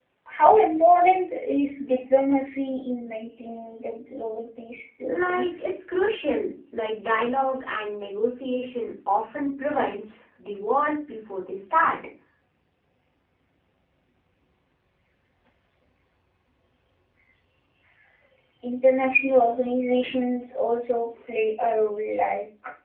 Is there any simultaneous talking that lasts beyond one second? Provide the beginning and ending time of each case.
none

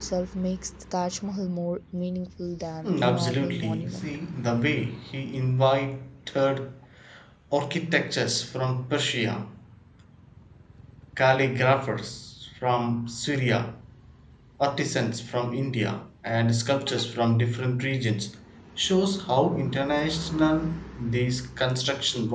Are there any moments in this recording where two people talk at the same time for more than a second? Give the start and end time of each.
2.9-4.1

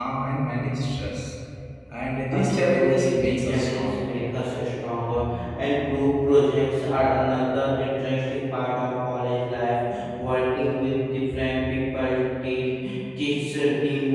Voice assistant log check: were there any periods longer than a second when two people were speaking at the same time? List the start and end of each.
2.3-4.0

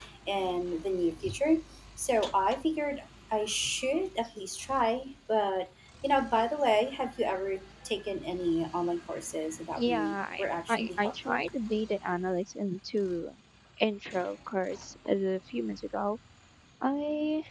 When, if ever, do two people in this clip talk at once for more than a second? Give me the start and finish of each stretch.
9.8-11.4

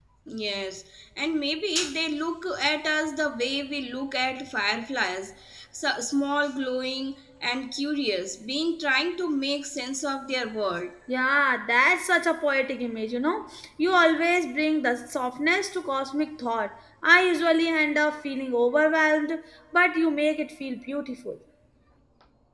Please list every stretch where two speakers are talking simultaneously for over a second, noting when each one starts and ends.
none

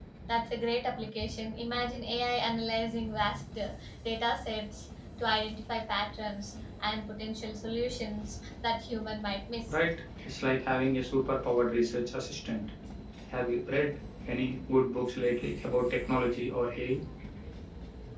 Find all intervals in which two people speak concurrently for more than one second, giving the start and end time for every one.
none

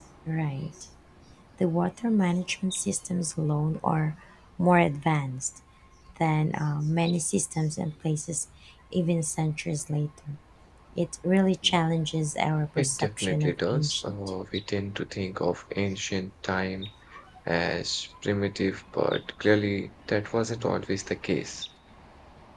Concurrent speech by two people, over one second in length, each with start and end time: 12.8-14.2

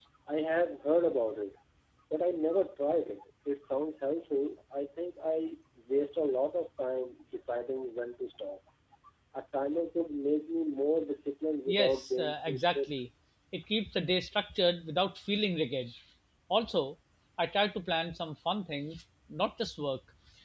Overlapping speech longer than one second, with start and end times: 11.7-12.9

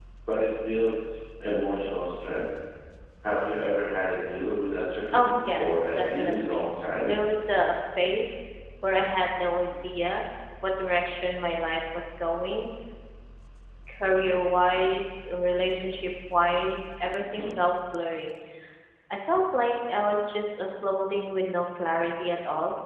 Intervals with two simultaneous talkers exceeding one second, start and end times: 5.1-6.6

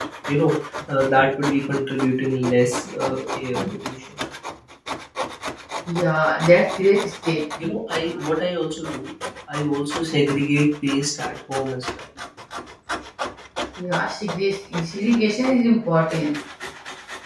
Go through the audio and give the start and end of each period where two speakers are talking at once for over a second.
none

